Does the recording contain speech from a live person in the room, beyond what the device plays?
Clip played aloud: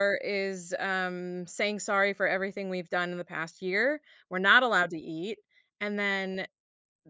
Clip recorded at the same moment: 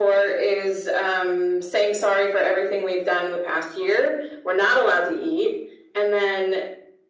No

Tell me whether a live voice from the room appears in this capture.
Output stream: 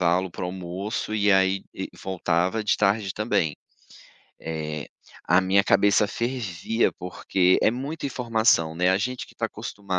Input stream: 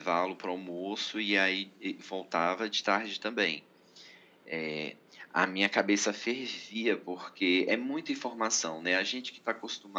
No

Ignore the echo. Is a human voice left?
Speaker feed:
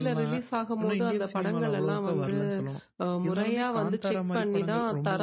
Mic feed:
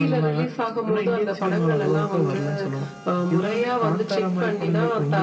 No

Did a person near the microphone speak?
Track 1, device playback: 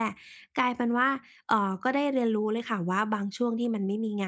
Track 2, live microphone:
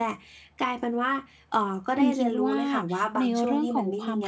Yes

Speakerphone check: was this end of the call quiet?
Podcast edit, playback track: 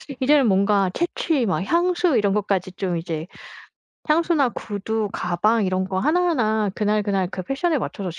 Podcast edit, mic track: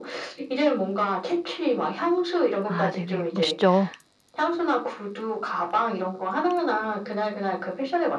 No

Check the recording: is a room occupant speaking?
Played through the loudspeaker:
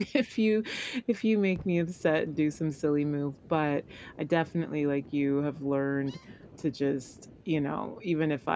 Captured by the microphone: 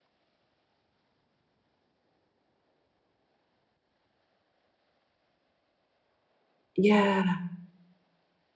Yes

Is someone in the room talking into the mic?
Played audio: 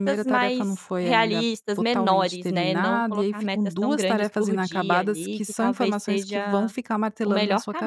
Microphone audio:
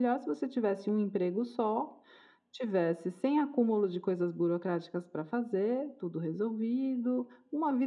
Yes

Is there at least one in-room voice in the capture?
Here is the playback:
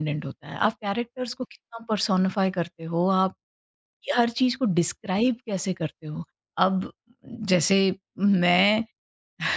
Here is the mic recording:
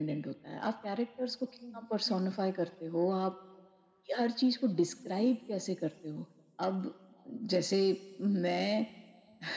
Yes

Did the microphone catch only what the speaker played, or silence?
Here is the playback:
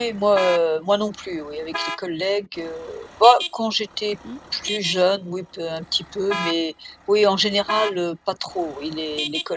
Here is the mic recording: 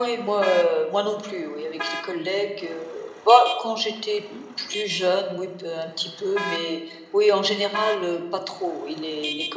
Yes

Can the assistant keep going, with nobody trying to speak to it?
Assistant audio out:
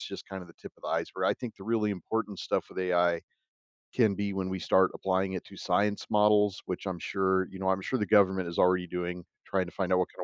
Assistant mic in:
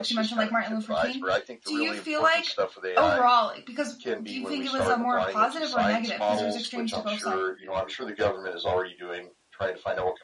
No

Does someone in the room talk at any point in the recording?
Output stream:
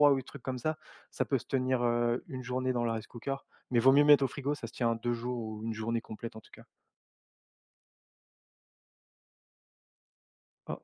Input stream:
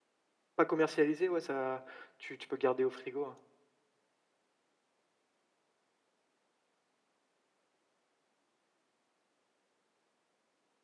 Yes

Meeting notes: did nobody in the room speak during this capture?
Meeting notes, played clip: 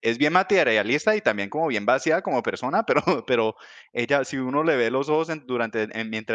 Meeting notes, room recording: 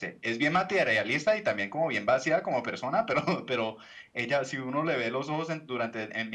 Yes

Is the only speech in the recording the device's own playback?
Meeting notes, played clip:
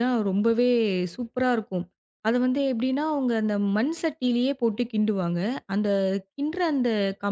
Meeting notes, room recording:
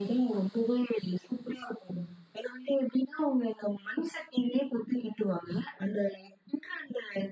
Yes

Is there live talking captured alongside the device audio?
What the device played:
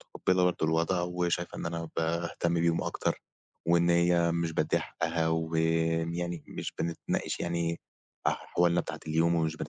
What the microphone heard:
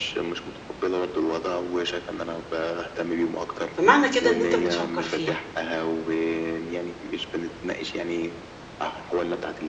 Yes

